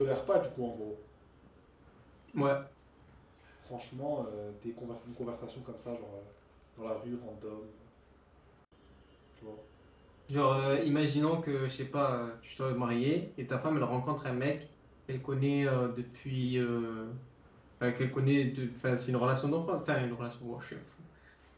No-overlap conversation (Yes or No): Yes